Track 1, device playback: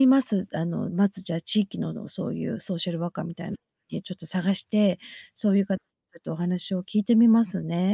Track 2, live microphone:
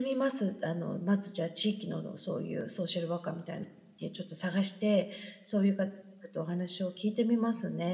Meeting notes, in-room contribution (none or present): none